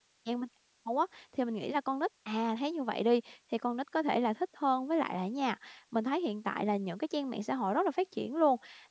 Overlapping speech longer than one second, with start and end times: none

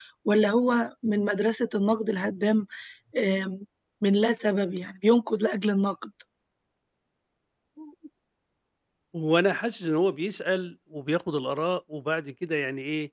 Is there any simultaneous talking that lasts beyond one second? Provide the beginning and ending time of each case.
none

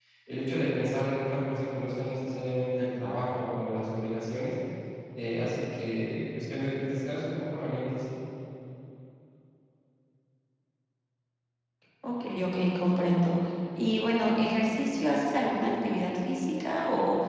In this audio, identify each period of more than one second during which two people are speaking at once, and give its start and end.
none

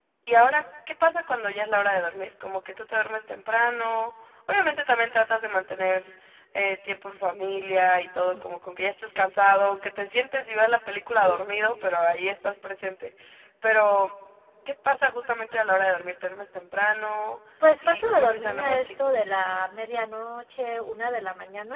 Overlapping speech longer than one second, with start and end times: 17.8-19.1

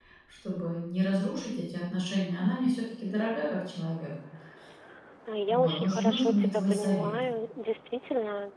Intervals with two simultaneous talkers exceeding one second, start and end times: 5.5-7.1

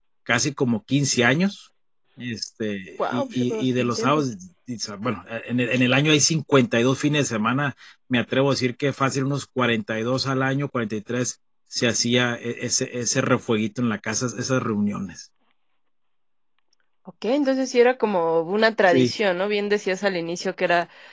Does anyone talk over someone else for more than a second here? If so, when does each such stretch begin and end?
3.0-4.2

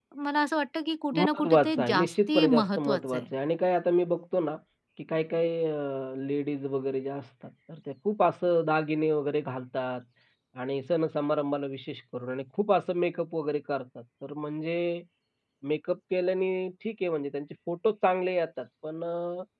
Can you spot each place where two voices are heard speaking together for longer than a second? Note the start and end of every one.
1.1-3.2

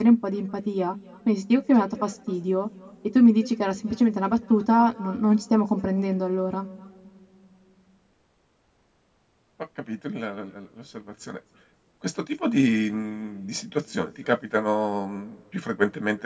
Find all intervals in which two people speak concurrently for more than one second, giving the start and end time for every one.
none

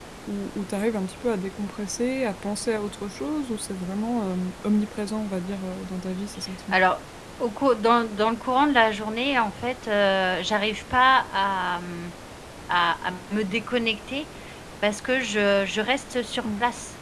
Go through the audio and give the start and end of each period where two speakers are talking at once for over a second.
none

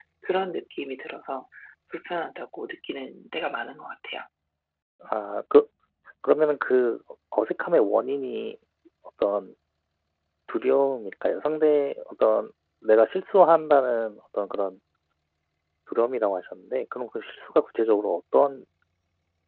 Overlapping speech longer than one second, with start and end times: none

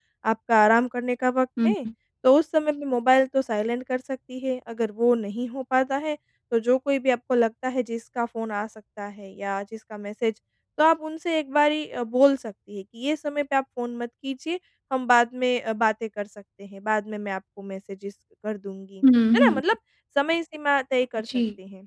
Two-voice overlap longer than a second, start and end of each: none

